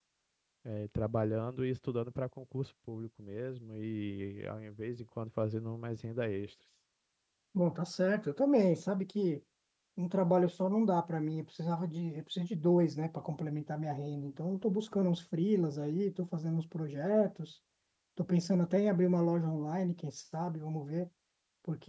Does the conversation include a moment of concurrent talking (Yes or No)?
No